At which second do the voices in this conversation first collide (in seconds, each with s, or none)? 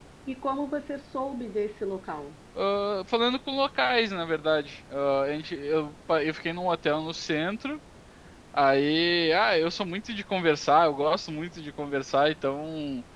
none